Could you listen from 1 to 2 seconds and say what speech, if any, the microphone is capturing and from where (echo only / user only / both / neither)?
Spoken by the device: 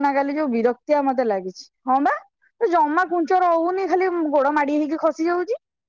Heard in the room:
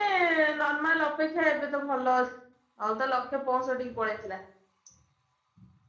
user only